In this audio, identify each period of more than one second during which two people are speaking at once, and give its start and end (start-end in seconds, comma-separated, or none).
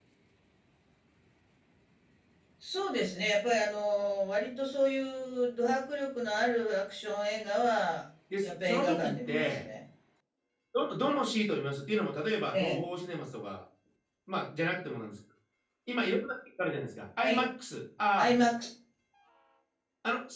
8.4-9.6